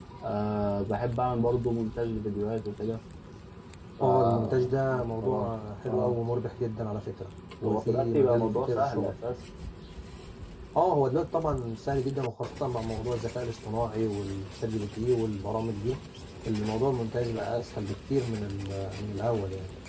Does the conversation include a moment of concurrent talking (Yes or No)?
Yes